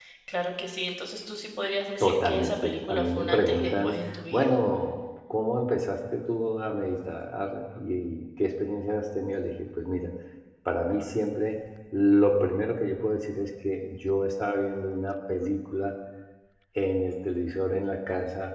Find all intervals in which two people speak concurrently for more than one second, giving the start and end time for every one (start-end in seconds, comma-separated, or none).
2.0-4.5